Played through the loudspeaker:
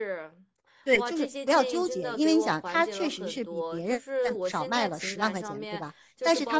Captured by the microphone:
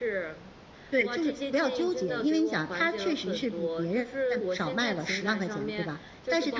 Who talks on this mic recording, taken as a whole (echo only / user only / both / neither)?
echo only